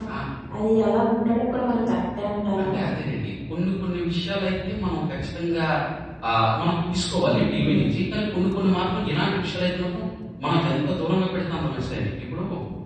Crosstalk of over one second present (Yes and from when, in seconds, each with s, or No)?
No